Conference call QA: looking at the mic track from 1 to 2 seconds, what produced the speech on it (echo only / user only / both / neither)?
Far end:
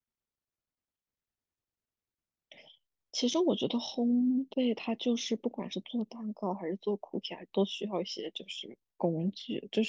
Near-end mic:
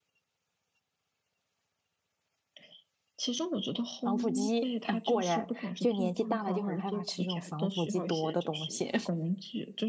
neither